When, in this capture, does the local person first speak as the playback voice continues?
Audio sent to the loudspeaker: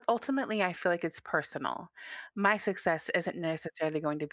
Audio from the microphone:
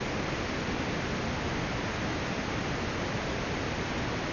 none

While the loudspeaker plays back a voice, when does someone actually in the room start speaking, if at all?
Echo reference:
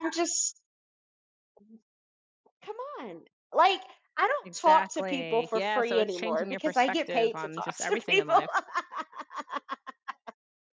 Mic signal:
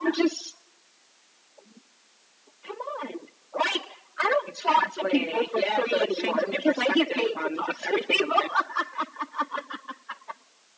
none

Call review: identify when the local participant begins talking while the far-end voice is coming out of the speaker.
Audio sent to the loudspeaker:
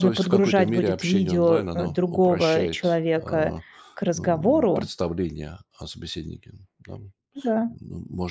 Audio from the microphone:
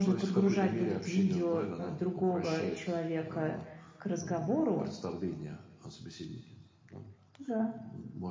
none

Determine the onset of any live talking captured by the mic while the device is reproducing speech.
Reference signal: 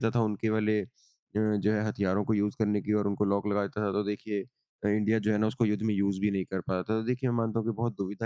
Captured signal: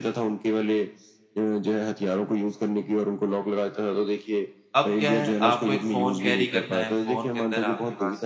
5 s

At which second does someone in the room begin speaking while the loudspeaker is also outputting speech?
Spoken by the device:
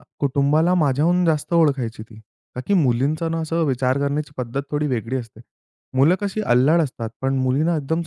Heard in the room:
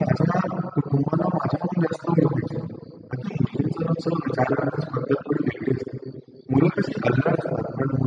none

